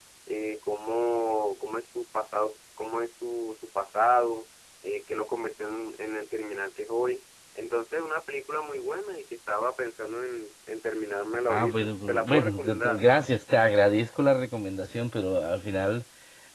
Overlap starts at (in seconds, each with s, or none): 11.5 s